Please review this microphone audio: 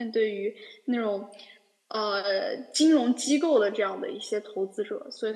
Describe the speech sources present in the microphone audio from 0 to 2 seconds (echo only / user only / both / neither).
user only